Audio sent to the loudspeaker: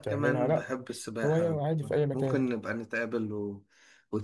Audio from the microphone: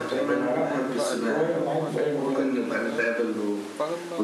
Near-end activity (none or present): present